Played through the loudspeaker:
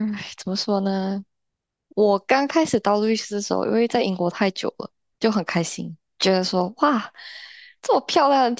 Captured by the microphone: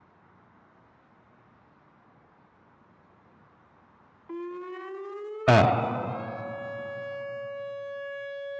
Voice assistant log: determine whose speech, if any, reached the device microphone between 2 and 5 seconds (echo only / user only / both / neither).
neither